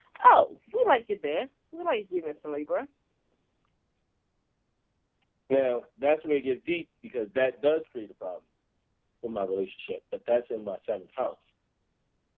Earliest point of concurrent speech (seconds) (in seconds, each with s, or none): none